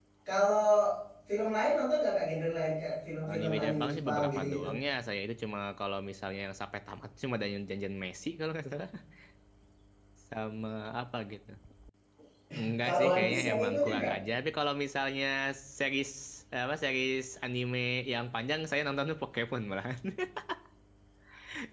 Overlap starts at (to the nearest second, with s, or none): 3 s